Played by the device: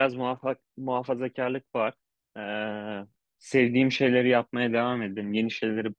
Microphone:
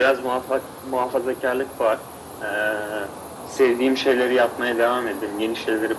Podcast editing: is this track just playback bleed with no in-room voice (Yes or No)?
Yes